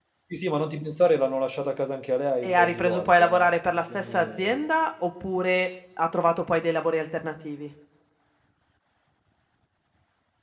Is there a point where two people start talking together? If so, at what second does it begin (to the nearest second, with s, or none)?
2 s